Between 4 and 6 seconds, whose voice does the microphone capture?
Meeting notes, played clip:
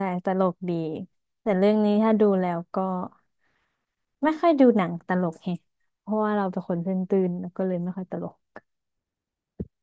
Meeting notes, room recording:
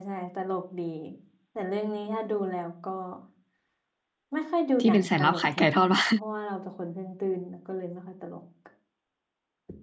both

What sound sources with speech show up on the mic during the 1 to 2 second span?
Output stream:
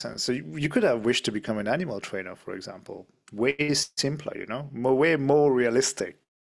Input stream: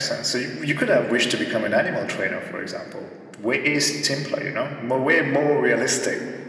echo only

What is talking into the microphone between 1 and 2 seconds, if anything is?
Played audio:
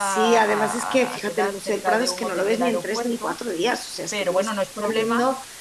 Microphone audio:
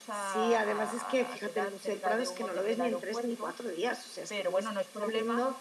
echo only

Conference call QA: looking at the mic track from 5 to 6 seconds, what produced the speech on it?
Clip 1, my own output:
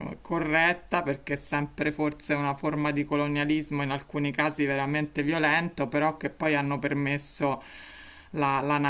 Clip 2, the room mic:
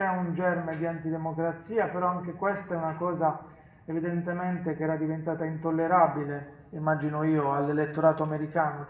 user only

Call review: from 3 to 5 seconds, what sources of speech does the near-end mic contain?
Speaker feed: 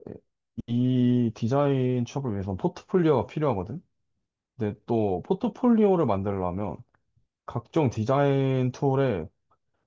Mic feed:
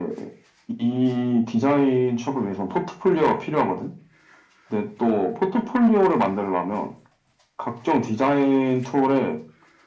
echo only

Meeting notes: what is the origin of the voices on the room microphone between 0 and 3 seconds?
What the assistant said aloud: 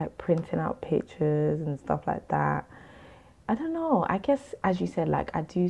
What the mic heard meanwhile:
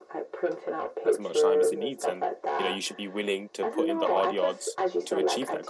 both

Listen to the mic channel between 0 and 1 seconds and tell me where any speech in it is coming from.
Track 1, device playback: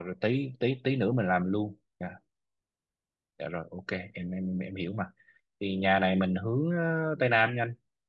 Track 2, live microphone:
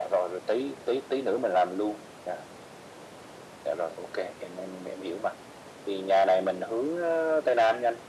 echo only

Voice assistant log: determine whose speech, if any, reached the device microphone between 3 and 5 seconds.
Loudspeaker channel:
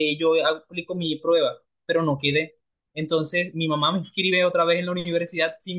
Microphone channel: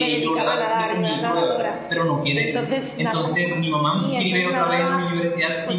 both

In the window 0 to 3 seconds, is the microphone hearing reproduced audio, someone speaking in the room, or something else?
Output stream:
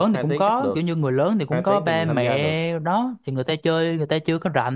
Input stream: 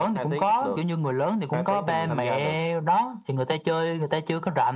echo only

